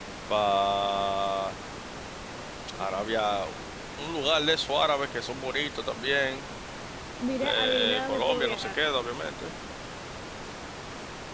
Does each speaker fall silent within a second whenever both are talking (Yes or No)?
No